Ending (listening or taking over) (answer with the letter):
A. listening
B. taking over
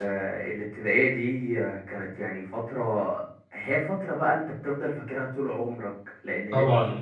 A